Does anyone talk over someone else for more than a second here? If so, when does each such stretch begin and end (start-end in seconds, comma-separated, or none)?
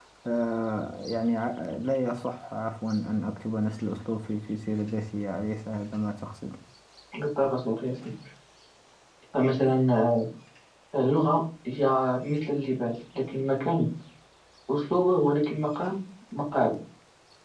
none